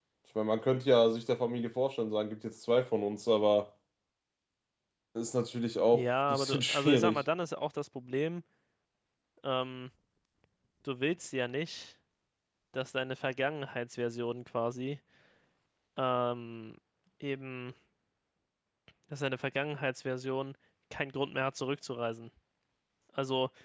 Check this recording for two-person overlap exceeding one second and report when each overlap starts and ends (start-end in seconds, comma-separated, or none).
5.9-7.2